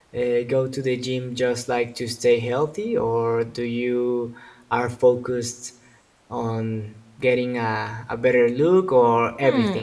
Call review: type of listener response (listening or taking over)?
taking over